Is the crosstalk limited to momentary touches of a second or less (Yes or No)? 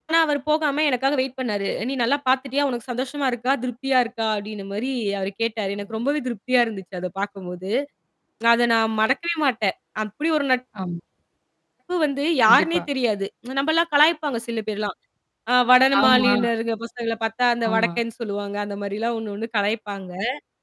Yes